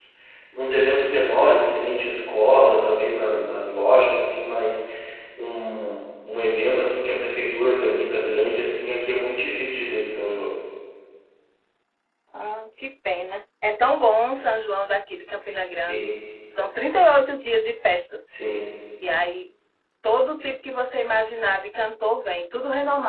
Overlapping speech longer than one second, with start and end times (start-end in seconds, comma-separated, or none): none